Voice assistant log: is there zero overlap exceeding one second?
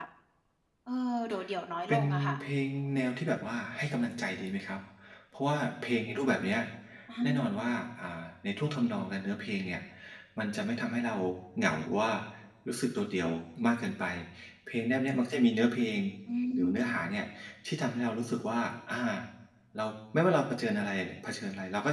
Yes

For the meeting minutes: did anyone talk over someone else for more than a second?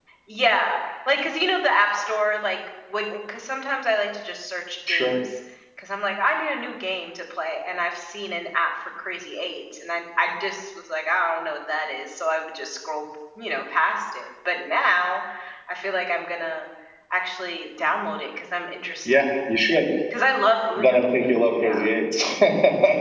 No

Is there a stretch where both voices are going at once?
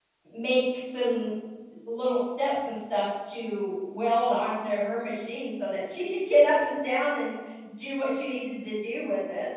No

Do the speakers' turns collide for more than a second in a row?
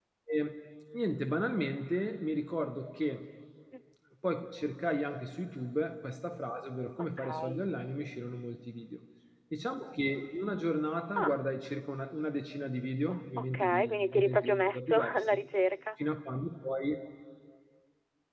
Yes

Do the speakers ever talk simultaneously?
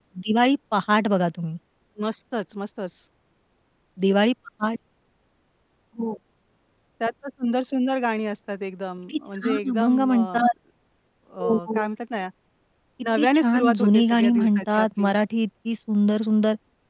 Yes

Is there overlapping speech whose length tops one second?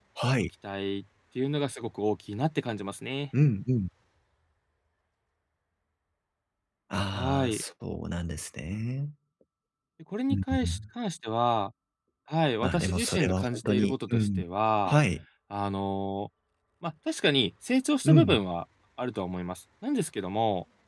Yes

